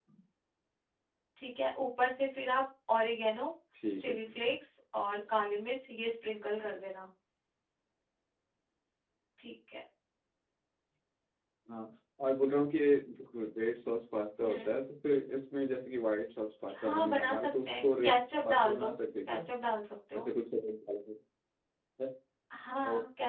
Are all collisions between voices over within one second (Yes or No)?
No